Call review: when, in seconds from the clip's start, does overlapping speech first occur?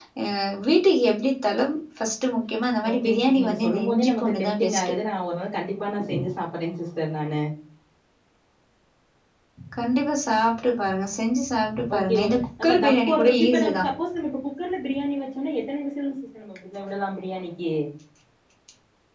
2.9 s

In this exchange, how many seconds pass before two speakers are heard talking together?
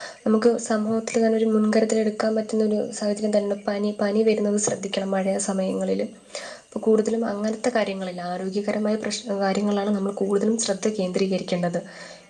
none

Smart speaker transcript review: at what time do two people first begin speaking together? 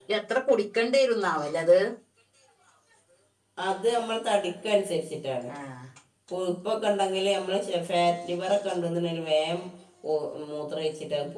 none

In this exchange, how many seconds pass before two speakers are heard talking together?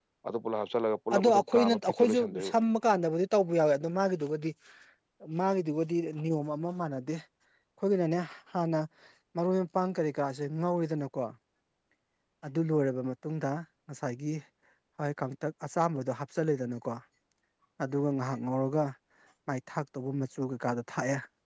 1.1 s

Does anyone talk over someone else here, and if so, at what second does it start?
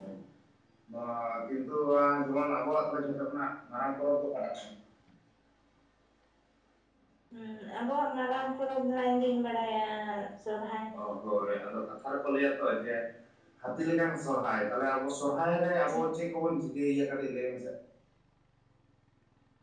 none

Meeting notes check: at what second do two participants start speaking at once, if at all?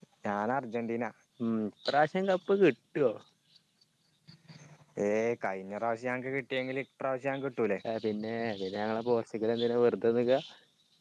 none

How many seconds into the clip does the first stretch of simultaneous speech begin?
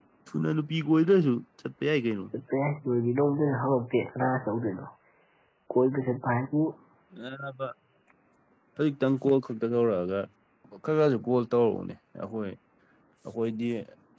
none

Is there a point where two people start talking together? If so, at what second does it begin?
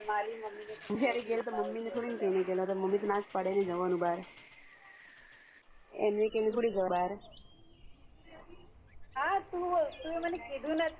0.9 s

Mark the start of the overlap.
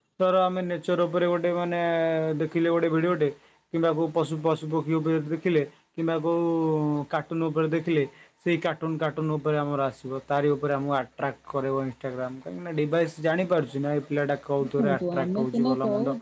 14.6 s

